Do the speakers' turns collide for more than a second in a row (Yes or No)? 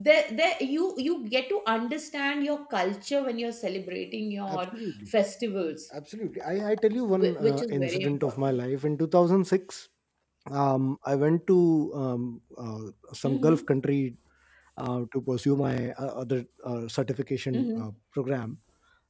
Yes